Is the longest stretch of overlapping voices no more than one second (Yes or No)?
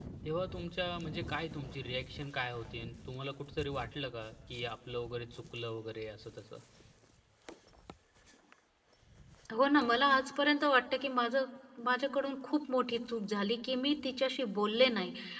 Yes